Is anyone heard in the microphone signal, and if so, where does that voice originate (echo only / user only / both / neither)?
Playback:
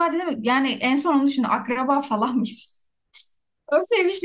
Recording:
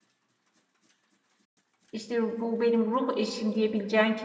user only